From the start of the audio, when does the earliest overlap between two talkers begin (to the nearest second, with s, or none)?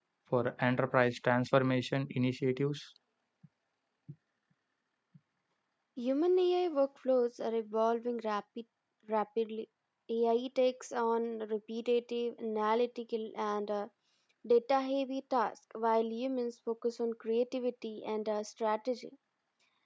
none